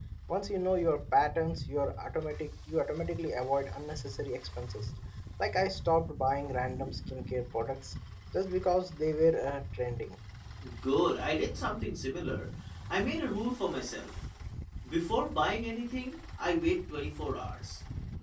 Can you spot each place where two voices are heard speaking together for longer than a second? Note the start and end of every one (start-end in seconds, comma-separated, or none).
none